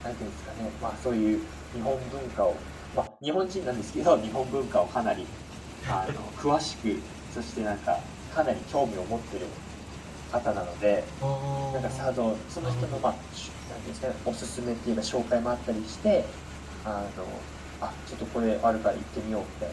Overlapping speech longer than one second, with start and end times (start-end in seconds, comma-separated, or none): none